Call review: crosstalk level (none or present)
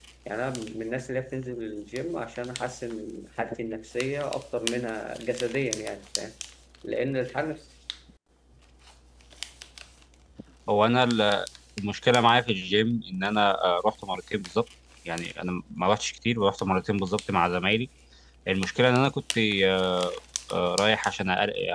none